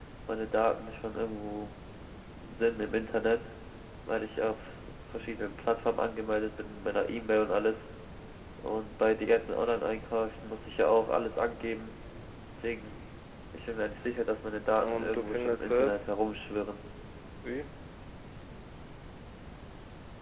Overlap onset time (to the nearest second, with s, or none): 15 s